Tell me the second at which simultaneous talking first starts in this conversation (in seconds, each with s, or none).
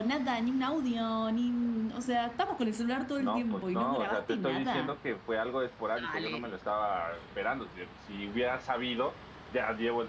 3.2 s